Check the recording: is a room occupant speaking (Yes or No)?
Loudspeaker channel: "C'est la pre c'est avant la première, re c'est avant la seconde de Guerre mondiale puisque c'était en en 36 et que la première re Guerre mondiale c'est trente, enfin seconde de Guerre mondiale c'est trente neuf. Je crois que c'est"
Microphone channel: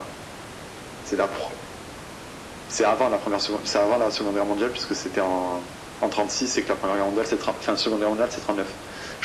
No